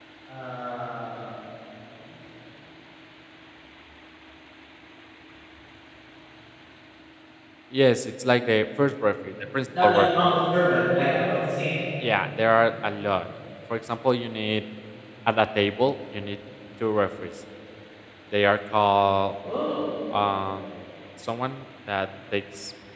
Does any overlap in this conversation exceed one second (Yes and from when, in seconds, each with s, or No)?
No